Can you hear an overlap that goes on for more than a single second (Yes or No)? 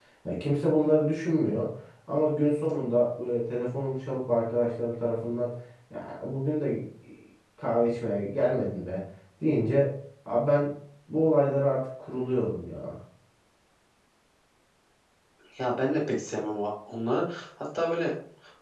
No